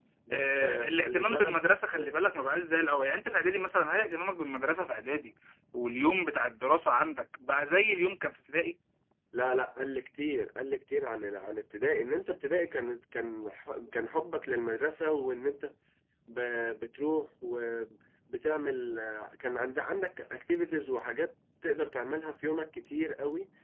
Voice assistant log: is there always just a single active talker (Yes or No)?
No